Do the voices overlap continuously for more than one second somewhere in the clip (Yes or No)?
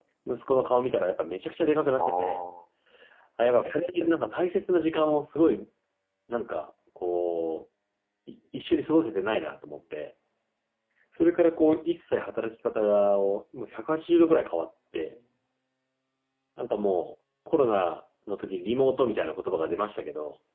No